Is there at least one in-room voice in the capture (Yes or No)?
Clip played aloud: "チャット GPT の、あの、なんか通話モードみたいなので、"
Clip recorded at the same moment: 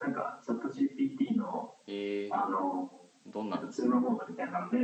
Yes